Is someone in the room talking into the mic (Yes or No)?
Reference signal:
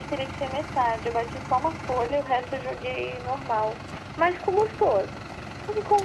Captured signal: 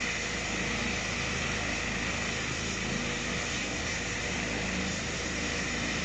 No